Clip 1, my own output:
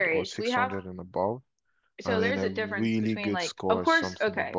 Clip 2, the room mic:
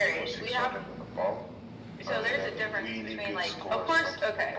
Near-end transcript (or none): none